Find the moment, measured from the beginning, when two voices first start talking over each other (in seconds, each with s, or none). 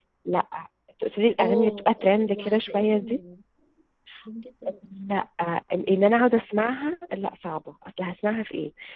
1.4 s